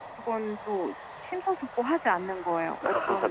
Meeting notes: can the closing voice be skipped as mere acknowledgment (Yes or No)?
No